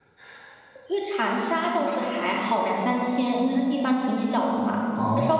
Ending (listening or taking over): listening